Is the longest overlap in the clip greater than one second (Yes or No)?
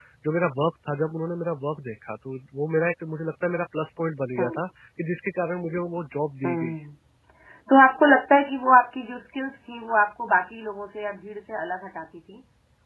No